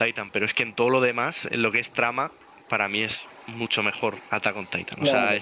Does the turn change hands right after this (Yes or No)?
Yes